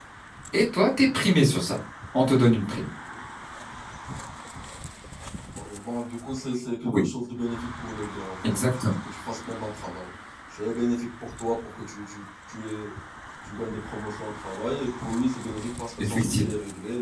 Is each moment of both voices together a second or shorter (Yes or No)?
Yes